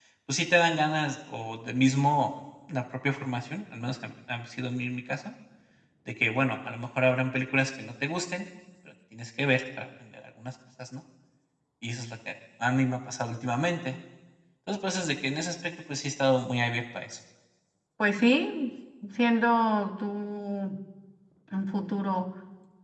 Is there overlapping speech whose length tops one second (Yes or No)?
No